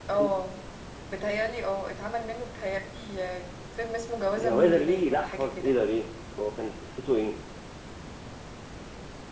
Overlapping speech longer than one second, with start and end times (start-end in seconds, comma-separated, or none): 4.4-5.7